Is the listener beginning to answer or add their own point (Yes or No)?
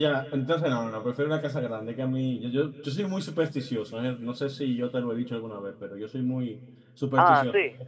No